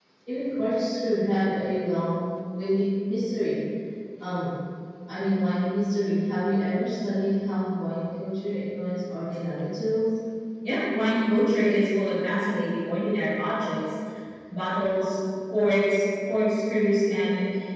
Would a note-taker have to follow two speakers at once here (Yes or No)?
No